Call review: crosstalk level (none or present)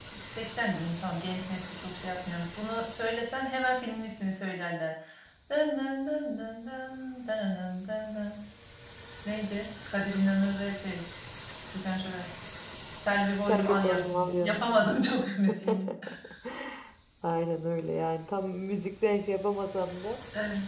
present